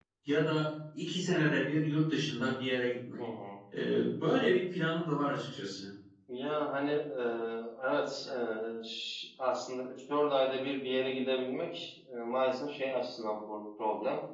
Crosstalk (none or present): none